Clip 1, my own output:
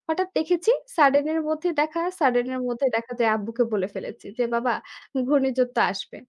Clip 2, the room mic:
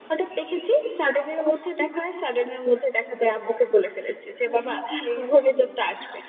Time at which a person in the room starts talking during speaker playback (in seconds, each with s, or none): 4.3 s